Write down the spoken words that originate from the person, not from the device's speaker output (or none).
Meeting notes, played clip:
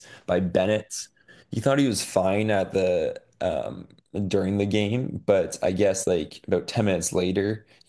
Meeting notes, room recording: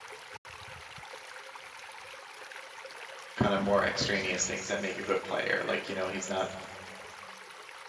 kind of more extraneous things that make a good player. Like, you know, he's not